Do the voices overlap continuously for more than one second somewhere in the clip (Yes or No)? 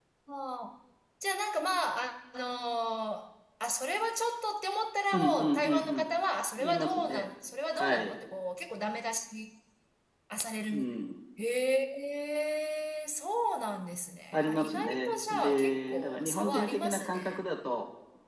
Yes